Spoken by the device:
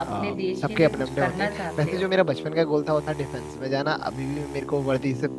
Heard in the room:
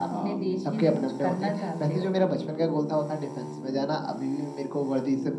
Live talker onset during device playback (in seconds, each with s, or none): none